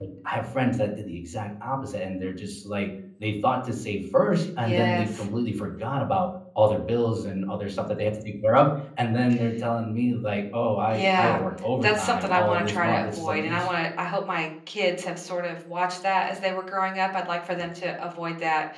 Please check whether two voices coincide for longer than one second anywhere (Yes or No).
Yes